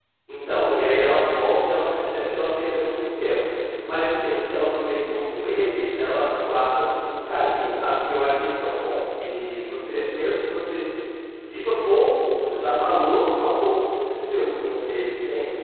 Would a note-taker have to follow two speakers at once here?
No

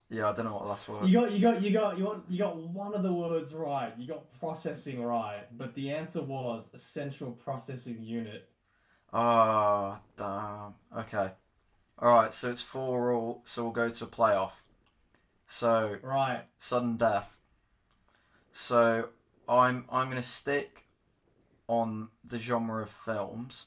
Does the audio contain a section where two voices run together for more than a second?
No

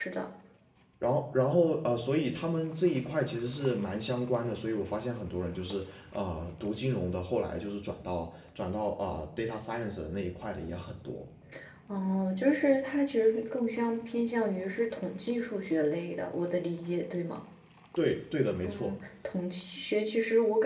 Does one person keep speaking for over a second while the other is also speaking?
No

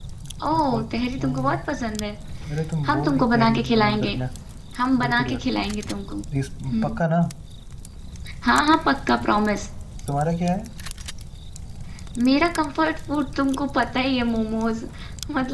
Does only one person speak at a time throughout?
No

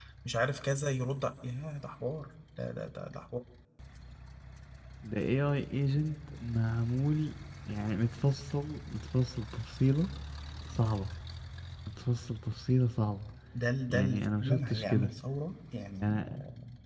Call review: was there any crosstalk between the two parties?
Yes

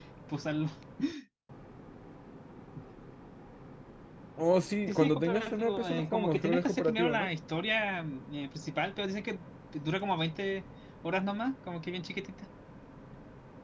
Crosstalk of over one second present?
Yes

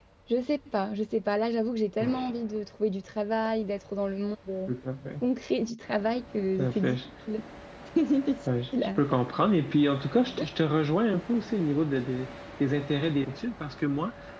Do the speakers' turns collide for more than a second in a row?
No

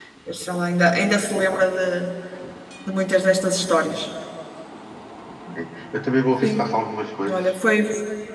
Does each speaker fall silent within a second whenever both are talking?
Yes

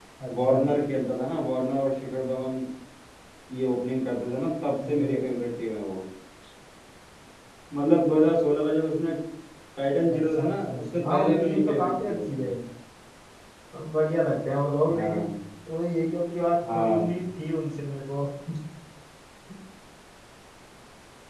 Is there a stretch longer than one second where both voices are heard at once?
Yes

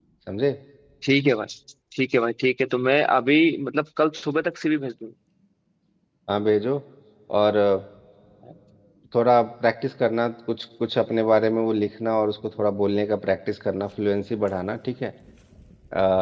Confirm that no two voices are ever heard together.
Yes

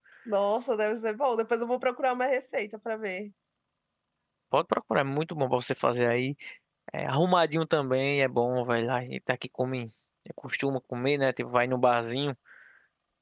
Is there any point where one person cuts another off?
No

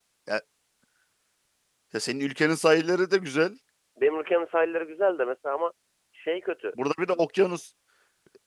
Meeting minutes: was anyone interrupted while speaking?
No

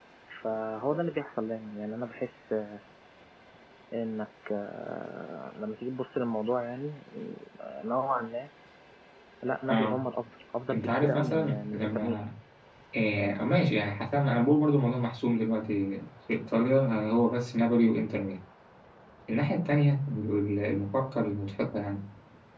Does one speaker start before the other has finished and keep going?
Yes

